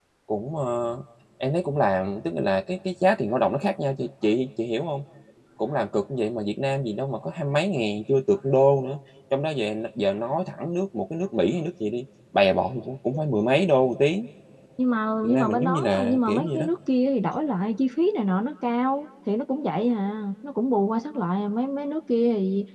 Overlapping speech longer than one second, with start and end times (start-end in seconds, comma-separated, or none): 15.2-16.6